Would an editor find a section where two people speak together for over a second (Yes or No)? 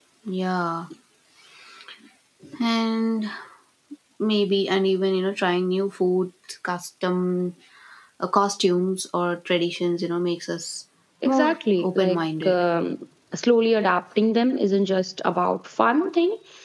Yes